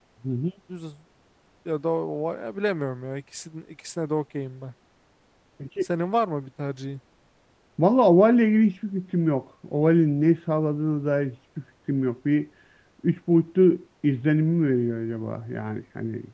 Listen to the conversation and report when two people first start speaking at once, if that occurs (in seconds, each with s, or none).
none